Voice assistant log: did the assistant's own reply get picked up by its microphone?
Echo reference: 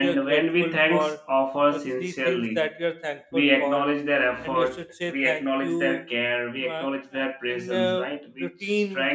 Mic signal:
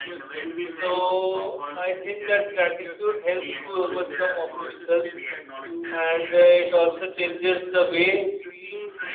Yes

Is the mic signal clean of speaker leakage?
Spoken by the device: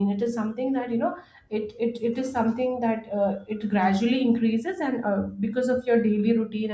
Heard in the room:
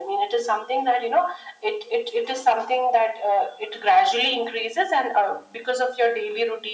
No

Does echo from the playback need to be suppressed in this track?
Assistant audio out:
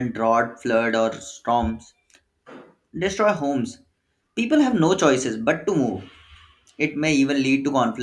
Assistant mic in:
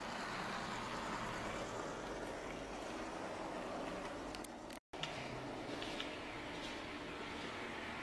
No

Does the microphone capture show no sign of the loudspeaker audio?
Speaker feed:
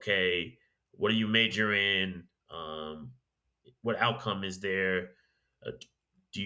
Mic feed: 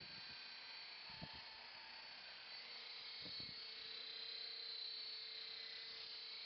Yes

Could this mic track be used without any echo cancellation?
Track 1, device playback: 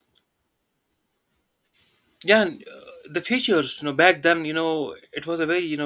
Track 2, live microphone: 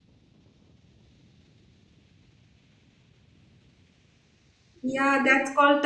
Yes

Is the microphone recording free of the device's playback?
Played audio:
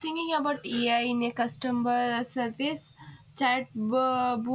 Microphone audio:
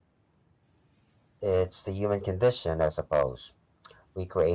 Yes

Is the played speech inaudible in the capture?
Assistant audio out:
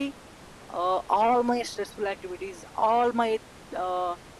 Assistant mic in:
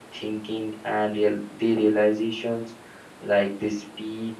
Yes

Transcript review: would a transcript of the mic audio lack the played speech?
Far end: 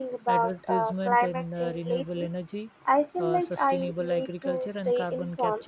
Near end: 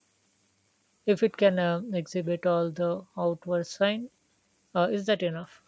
Yes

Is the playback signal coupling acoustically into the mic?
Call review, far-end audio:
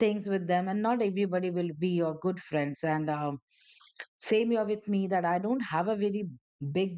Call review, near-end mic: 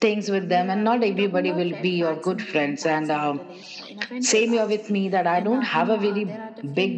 Yes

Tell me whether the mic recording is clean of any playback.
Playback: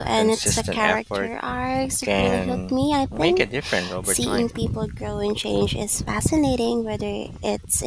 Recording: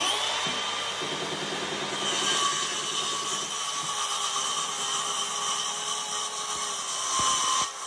Yes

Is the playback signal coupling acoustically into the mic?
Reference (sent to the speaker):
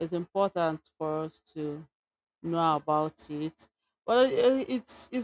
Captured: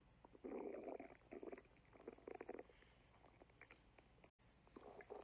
No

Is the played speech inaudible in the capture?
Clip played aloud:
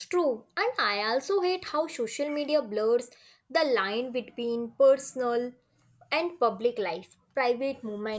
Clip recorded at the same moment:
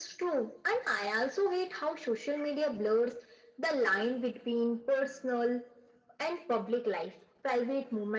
No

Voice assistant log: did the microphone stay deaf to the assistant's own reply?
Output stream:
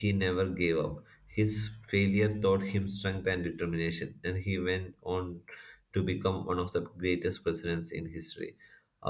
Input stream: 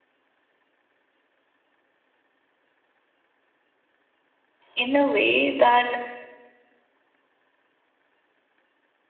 Yes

